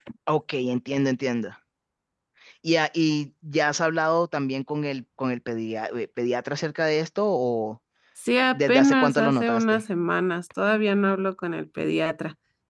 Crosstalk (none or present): present